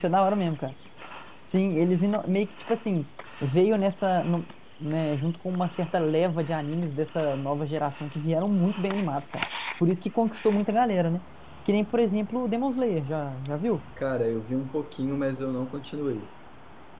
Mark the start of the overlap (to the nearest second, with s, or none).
none